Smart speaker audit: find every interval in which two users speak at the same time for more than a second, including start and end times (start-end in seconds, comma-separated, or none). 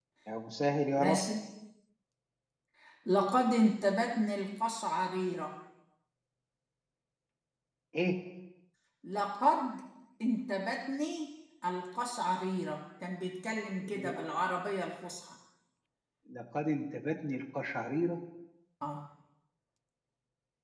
none